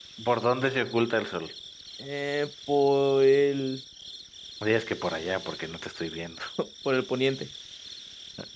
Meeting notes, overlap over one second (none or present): none